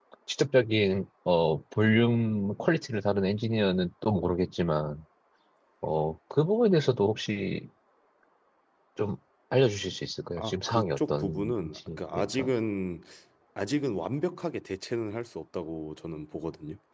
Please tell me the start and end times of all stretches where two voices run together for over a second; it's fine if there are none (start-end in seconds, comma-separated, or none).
10.4-12.5